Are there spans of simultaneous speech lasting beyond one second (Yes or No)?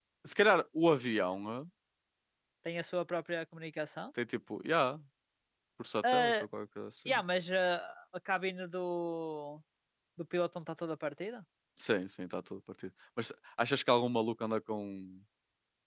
No